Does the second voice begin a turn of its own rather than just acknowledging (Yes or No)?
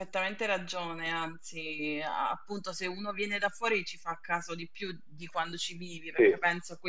No